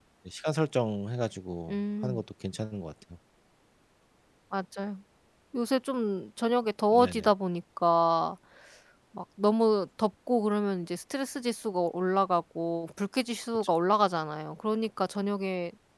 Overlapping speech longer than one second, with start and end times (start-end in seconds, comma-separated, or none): none